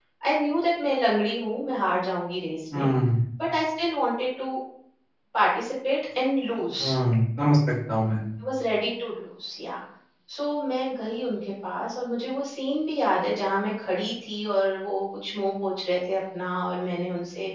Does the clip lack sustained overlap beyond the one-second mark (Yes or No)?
Yes